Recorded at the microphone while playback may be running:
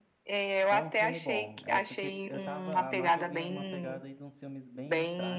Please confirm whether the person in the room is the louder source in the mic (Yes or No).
No